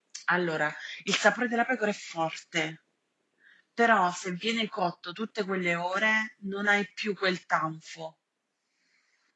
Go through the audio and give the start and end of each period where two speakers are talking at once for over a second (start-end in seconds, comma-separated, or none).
none